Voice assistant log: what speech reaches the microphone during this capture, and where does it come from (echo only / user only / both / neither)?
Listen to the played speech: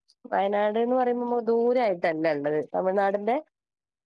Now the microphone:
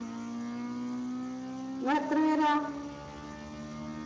user only